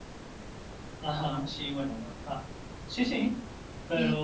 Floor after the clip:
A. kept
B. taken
B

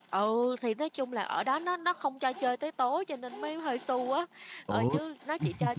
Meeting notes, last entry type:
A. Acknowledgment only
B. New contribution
A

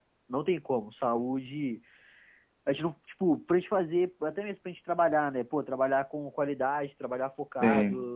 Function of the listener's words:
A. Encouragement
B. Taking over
A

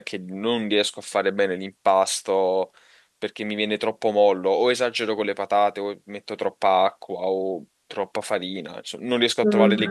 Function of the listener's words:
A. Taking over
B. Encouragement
A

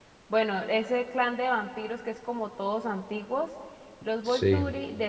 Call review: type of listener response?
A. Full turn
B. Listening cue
B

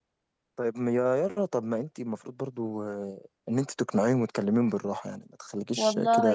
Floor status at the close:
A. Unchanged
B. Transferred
B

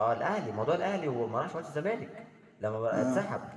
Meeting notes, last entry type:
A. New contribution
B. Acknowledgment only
B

